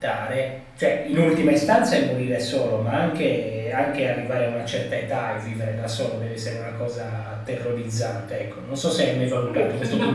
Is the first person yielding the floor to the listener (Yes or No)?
Yes